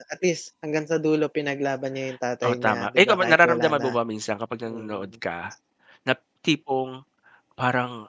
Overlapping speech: Yes, from 2.4 s

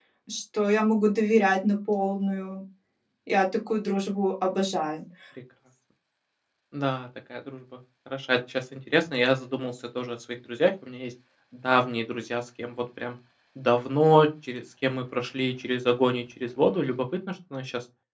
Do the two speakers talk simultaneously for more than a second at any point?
No

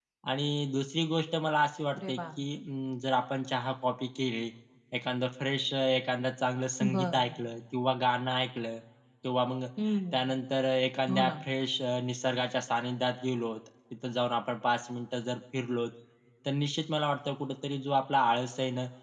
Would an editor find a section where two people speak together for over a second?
No

